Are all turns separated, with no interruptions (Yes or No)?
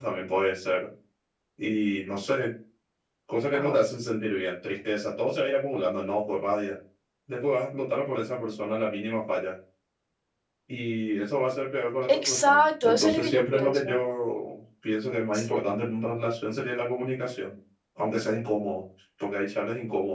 No